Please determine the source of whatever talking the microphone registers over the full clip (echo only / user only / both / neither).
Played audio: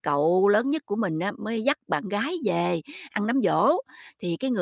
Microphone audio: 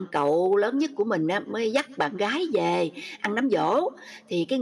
echo only